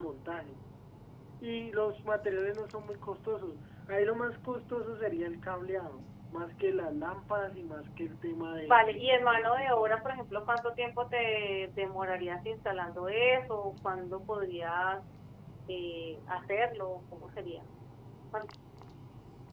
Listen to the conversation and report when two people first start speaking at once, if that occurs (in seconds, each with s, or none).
8.7 s